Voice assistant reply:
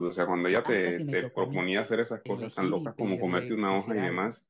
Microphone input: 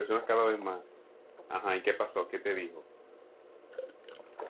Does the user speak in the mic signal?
Yes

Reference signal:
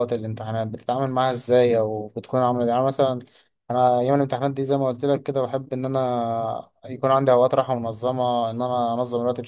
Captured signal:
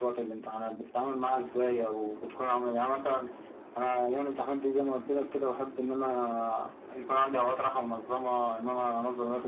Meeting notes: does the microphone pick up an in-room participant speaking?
No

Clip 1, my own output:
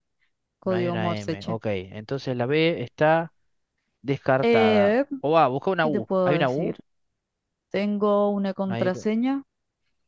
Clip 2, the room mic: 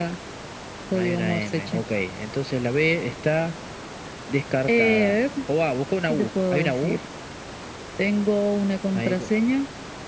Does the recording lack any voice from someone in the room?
Yes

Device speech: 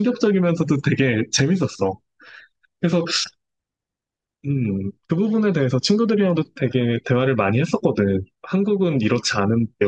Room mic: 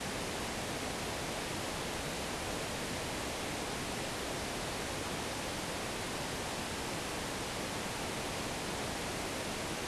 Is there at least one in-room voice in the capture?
No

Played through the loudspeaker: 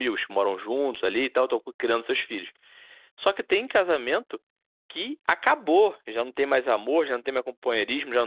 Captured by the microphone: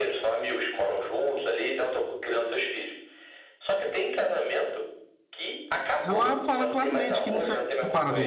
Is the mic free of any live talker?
No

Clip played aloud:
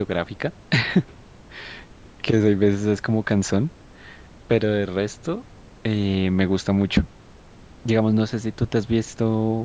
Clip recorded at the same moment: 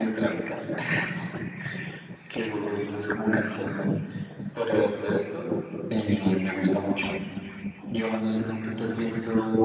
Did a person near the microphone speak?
No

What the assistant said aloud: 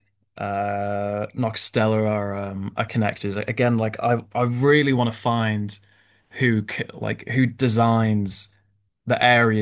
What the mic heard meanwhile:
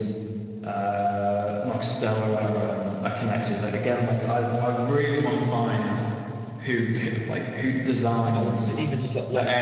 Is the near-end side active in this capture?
Yes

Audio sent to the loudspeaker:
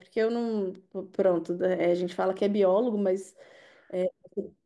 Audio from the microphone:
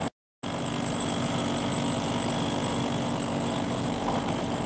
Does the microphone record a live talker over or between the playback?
No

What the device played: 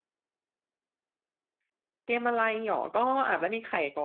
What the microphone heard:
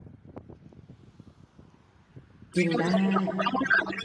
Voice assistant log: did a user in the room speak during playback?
Yes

